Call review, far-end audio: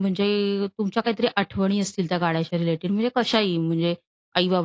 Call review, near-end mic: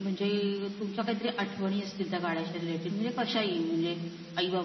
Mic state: echo only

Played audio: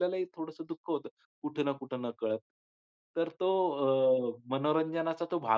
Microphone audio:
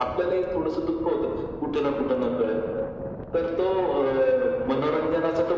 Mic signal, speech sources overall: echo only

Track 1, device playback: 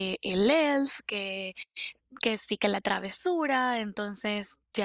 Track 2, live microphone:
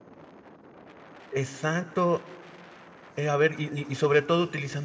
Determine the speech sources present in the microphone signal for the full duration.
user only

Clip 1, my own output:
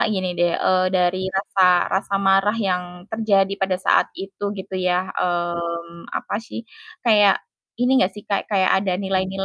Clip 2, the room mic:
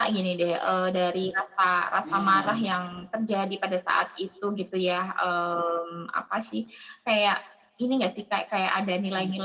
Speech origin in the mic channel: both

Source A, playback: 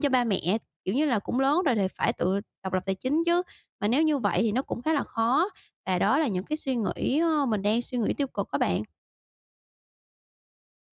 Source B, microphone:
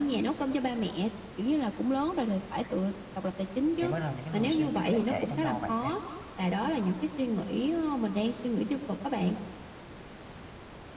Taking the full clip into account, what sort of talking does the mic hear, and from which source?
both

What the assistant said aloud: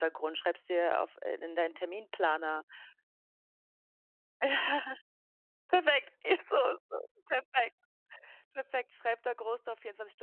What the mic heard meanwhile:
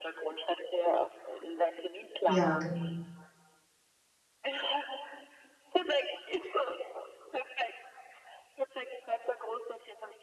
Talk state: both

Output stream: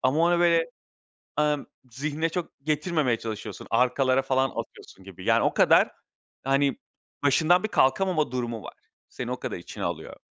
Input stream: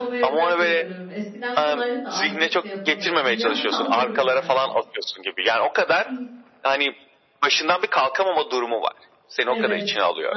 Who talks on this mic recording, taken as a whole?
both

